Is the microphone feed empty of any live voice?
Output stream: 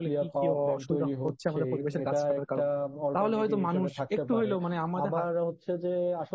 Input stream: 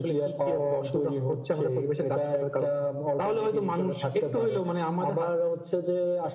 Yes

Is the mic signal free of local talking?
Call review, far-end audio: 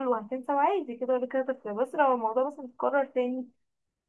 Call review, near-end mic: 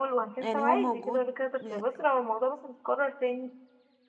No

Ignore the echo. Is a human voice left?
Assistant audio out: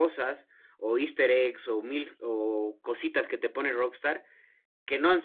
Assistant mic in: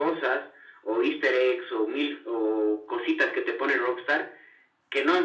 No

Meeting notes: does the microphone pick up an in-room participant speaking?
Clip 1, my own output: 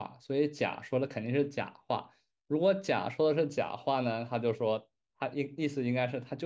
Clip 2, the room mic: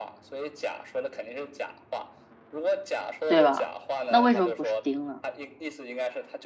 Yes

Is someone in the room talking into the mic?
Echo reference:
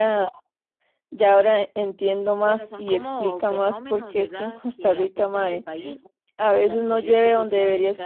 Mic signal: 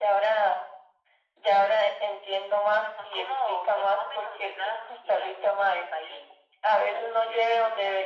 No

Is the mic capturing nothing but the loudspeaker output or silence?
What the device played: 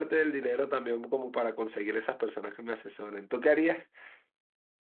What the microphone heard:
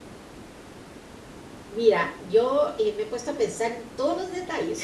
No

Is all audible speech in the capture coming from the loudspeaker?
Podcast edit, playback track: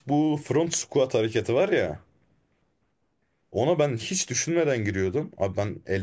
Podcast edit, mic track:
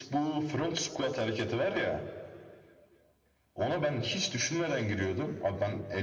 Yes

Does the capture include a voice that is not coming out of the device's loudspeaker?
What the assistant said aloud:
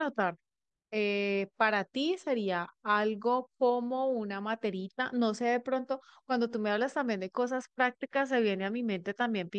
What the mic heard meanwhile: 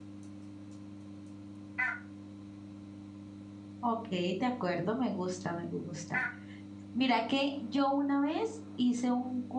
Yes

